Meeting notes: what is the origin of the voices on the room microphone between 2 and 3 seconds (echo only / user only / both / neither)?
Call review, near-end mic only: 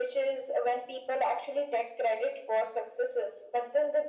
echo only